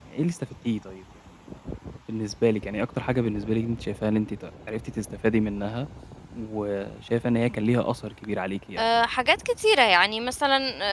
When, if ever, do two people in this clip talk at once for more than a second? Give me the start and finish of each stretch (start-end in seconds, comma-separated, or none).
none